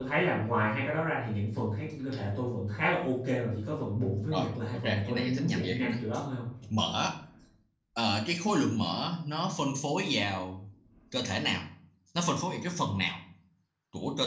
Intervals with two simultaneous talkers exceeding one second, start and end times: 4.3-6.0

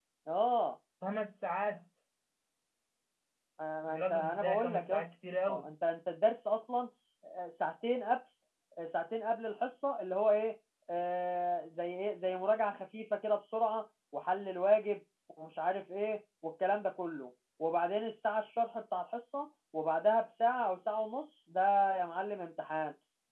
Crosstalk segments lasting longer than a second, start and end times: 3.9-5.1

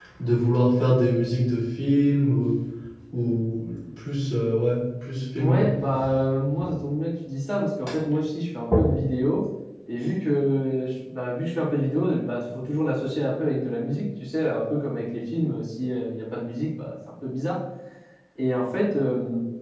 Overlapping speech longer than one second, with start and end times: none

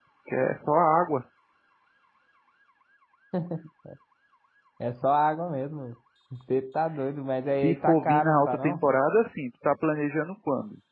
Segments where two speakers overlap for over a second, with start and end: 7.5-8.8

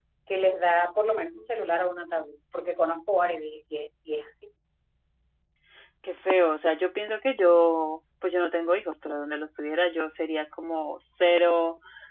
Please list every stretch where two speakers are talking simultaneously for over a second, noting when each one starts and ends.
none

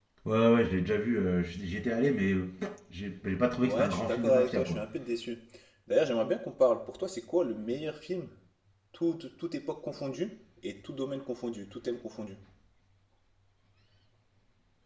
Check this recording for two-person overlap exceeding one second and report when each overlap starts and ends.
3.6-4.8

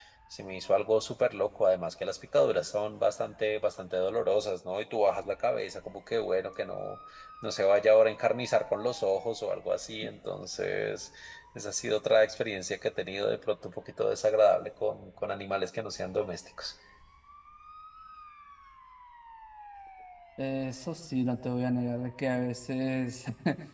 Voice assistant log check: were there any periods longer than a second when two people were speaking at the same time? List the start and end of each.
none

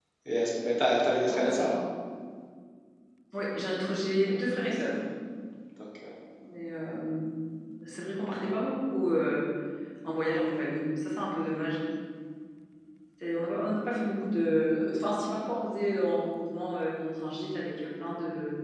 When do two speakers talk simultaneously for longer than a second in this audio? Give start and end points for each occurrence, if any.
none

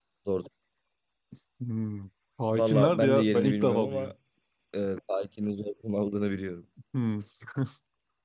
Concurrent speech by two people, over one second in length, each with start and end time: 2.5-4.1

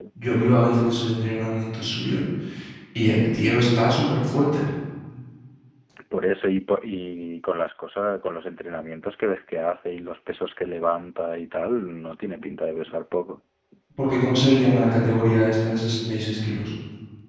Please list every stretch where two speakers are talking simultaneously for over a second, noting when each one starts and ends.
none

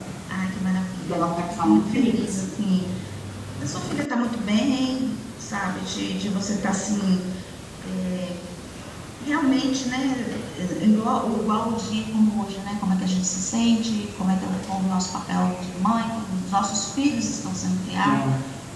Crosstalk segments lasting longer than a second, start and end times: 1.1-2.6

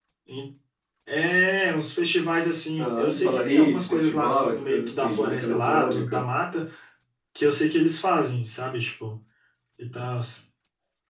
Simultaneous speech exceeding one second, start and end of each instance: 2.8-6.2

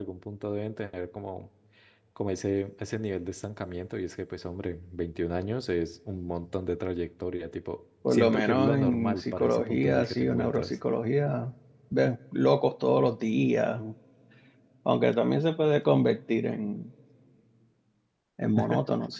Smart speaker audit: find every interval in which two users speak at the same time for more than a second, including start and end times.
8.1-10.8

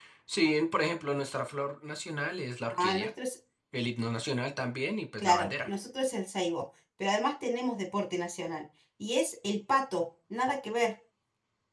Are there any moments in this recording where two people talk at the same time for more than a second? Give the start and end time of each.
none

